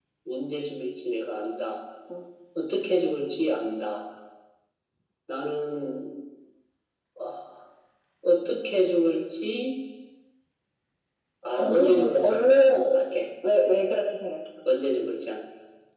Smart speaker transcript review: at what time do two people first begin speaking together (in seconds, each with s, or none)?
11.6 s